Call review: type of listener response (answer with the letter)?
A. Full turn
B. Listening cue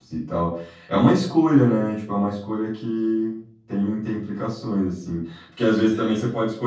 B